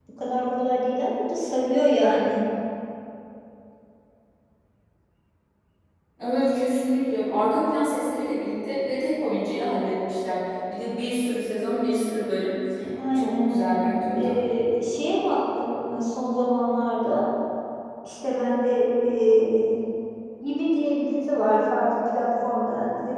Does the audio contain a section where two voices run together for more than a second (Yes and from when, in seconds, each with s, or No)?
Yes, from 13.2 s